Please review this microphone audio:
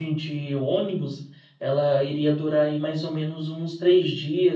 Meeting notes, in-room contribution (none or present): present